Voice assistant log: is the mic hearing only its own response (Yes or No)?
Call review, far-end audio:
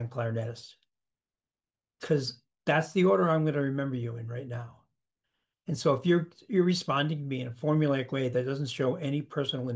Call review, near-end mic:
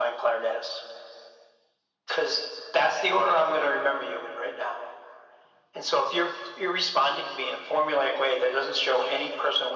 Yes